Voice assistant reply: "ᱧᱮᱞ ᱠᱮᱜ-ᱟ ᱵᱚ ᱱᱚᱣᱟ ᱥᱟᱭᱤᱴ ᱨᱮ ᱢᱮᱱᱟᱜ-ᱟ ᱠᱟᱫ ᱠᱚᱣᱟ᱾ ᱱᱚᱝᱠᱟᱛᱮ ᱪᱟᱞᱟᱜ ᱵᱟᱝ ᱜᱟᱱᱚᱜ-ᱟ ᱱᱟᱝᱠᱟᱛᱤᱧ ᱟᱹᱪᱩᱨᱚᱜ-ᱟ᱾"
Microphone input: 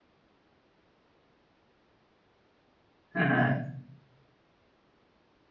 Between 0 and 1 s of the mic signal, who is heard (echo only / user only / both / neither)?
neither